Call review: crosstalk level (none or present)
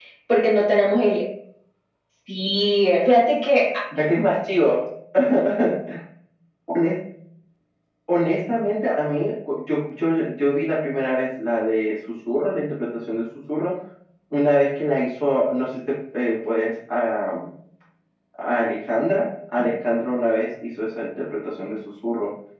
none